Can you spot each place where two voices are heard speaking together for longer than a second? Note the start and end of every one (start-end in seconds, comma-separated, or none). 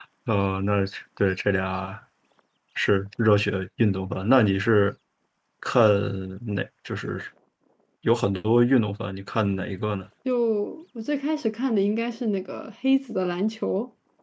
none